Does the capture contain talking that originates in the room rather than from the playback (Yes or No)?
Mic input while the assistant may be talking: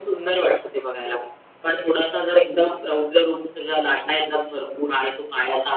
No